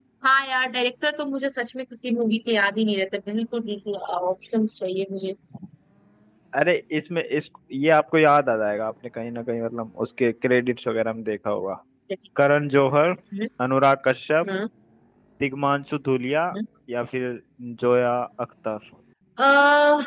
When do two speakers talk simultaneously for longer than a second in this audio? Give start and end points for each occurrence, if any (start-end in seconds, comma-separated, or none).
none